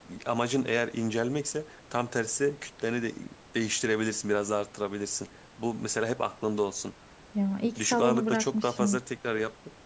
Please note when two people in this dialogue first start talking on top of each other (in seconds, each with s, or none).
7.8 s